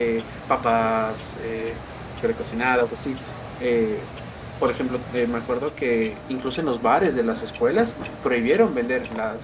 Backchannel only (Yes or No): Yes